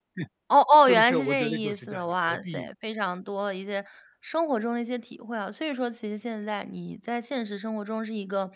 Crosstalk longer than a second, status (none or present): present